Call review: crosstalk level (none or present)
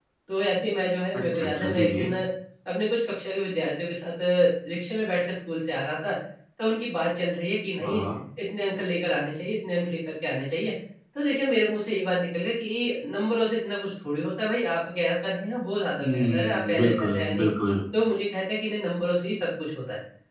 present